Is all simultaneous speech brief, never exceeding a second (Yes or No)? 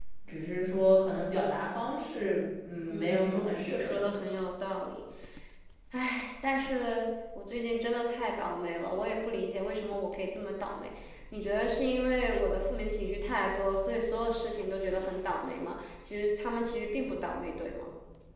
No